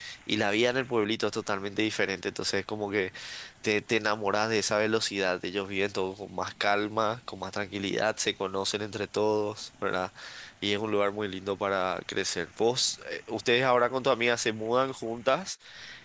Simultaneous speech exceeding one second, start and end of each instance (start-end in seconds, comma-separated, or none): none